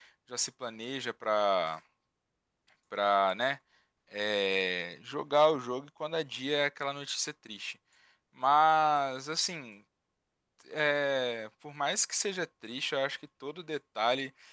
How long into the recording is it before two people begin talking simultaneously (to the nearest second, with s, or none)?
none